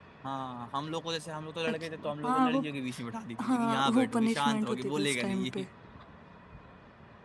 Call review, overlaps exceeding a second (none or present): present